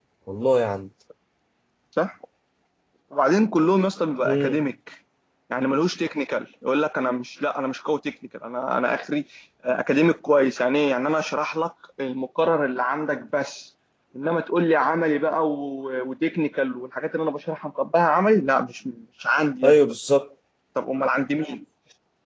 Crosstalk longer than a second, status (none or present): none